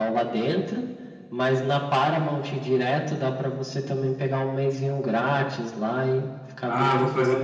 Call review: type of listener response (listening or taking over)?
taking over